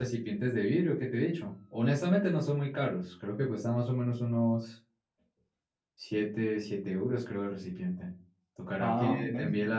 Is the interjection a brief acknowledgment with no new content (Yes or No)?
Yes